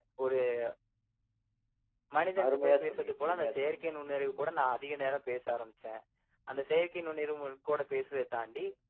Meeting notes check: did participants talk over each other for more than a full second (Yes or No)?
Yes